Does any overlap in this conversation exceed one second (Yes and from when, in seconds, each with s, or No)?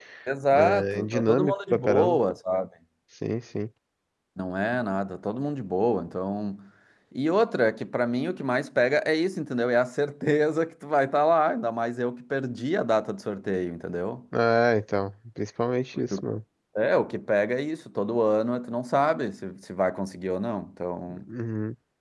Yes, from 0.5 s